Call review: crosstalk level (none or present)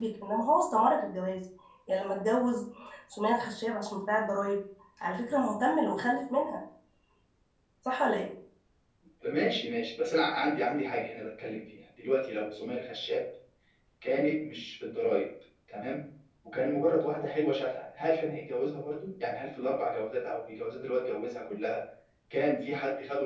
none